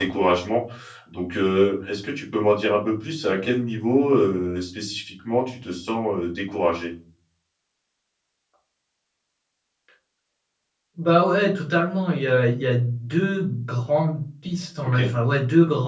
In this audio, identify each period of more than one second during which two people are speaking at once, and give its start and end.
none

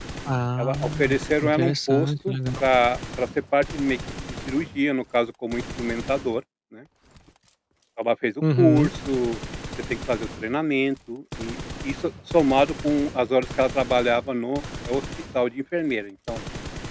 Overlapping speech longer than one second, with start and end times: 0.6-2.4

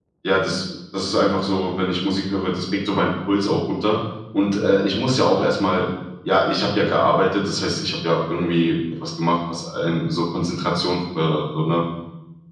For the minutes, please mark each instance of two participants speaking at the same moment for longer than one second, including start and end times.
none

